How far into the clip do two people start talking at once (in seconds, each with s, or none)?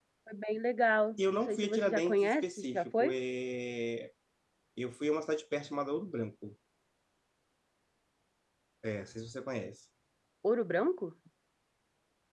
1.2 s